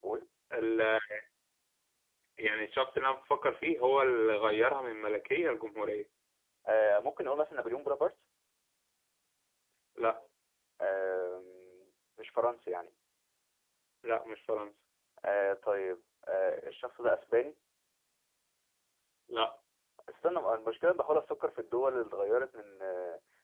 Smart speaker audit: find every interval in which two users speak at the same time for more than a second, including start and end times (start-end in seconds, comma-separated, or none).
none